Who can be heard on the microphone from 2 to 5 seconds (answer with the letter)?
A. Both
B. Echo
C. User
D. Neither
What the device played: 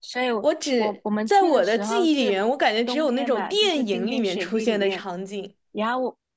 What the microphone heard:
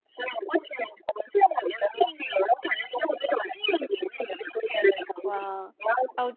B